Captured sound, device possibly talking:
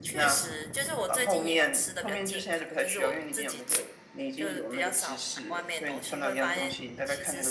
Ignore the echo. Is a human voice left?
No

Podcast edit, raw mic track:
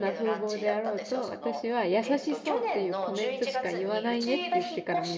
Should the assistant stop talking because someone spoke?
Yes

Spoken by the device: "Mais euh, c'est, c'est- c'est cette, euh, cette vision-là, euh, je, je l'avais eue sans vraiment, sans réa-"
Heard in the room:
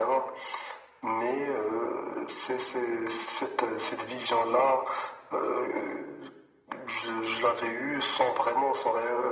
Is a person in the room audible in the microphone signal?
No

